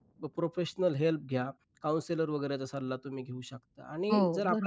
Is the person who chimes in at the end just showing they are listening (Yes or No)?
Yes